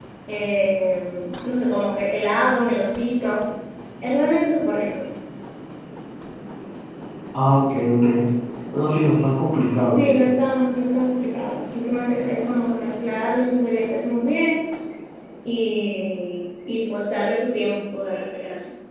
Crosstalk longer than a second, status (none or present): none